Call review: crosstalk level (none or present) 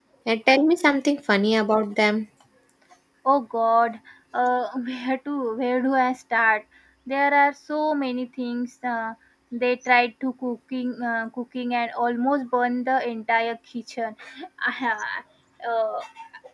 none